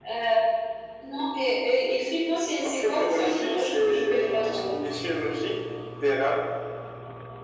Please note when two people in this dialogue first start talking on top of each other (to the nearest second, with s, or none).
3 s